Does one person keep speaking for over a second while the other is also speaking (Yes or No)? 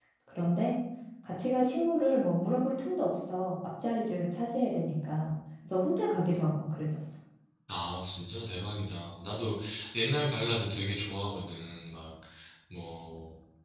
No